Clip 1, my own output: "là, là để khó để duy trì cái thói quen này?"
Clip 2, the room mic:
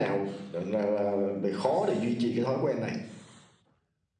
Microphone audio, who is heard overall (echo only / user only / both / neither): echo only